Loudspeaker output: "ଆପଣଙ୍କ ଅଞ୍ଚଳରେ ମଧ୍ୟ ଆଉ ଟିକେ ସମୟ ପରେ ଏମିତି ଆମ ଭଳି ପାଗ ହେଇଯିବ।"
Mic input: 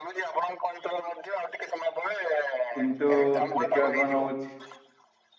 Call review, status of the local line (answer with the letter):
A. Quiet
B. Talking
B